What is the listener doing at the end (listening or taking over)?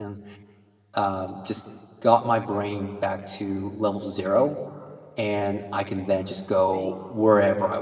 listening